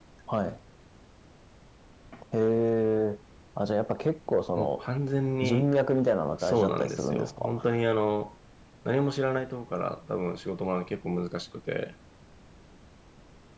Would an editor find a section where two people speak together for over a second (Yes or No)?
Yes